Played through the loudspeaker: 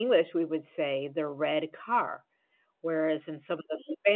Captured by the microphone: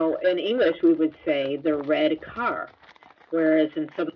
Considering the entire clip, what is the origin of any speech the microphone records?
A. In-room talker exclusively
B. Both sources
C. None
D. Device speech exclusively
D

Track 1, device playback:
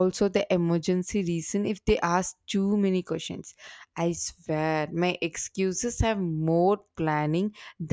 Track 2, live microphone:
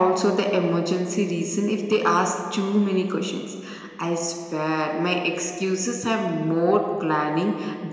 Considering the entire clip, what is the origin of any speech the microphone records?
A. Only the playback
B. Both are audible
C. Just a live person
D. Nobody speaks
A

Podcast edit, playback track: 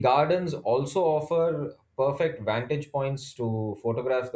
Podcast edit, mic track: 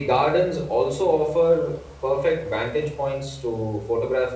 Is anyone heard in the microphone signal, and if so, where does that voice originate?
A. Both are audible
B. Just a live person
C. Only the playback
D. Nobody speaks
C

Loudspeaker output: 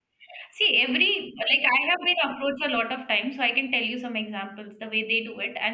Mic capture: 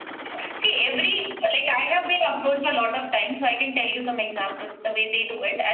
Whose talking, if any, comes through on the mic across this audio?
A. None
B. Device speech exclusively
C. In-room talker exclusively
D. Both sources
B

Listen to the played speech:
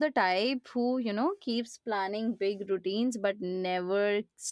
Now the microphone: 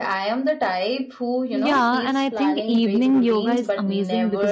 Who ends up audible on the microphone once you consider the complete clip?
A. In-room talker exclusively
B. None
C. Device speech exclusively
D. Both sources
D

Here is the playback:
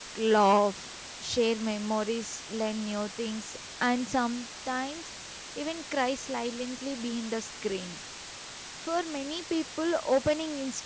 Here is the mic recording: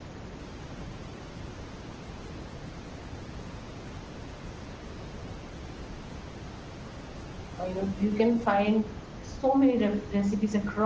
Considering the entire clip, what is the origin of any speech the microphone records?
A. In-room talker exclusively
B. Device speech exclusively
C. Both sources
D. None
A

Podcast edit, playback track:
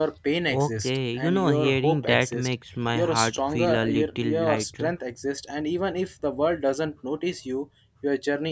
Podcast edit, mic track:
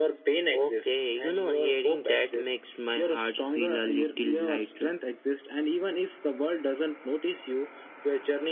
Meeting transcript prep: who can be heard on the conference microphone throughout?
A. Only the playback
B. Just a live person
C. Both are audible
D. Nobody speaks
A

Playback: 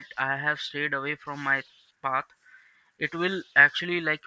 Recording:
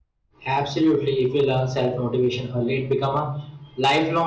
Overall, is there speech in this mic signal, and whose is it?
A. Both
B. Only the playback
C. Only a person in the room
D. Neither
C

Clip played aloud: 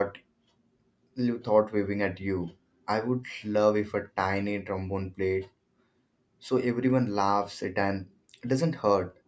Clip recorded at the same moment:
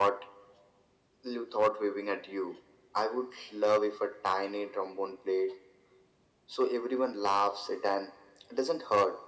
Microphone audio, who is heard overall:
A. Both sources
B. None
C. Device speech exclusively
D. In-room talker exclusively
C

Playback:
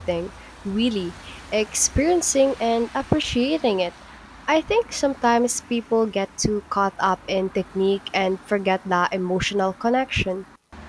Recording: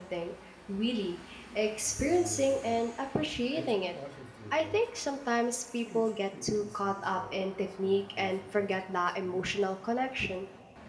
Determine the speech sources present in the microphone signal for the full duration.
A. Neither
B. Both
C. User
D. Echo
B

